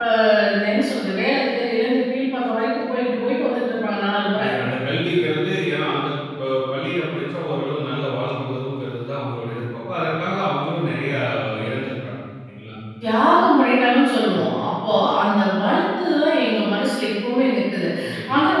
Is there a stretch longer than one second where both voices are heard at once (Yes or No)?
No